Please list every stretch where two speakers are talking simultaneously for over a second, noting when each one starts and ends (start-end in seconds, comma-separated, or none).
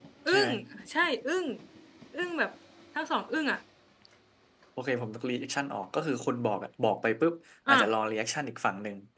none